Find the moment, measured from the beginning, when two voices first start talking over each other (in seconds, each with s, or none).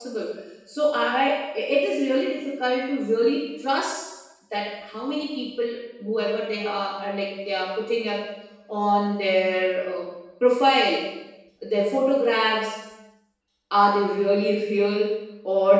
none